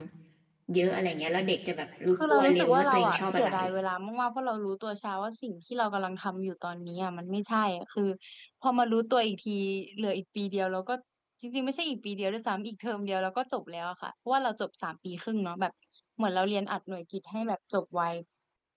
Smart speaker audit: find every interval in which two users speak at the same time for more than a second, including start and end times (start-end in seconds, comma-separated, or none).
2.1-3.5